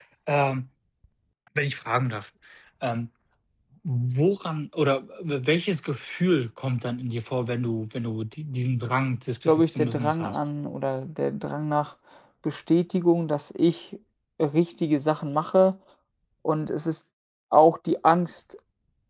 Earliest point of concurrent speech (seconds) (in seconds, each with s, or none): 9.3 s